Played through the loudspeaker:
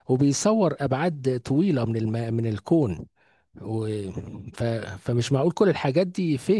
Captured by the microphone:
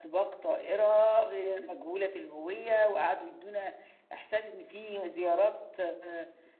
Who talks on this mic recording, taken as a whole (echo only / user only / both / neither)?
user only